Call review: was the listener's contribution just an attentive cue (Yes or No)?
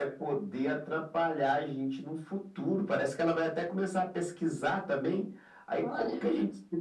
Yes